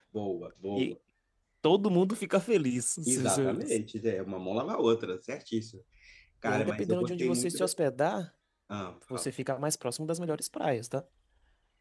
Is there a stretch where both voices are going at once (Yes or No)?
Yes